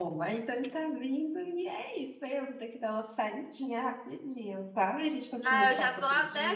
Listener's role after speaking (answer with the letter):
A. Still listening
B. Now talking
B